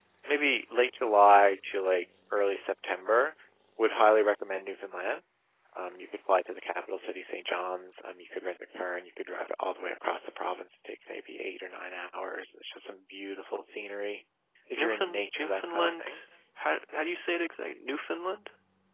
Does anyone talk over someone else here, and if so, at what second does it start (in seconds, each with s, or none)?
14.8 s